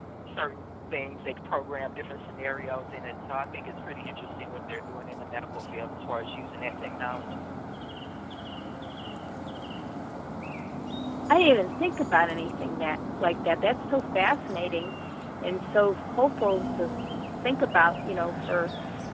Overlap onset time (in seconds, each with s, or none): none